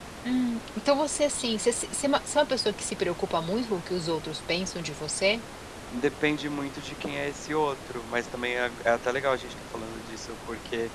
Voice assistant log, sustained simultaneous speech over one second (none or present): none